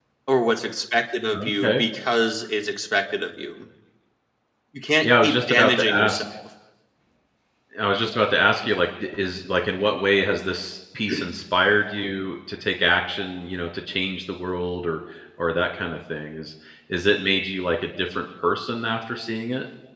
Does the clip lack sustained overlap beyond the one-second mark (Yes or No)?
No